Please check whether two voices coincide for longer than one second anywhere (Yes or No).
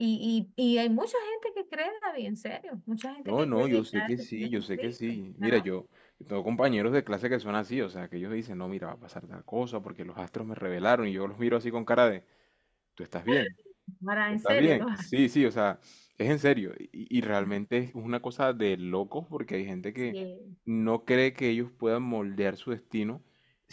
Yes